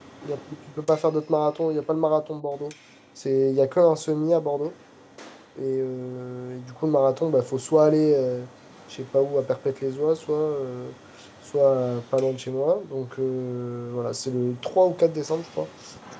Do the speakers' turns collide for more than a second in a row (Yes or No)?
No